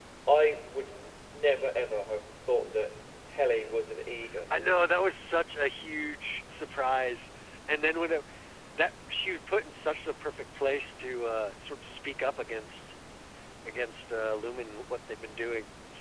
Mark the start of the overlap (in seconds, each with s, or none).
none